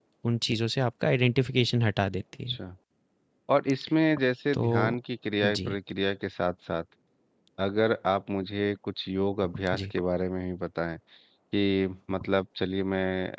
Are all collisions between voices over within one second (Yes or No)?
Yes